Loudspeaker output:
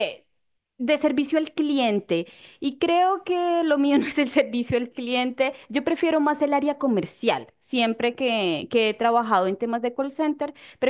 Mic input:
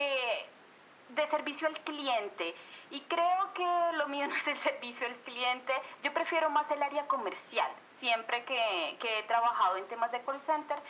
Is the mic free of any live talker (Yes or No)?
Yes